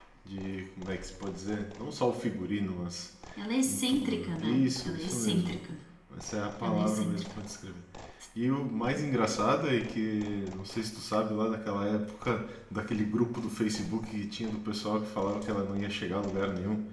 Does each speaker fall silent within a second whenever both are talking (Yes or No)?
No